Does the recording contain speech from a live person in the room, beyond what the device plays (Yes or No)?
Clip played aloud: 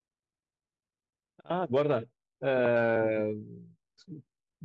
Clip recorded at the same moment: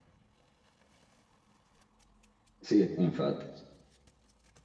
Yes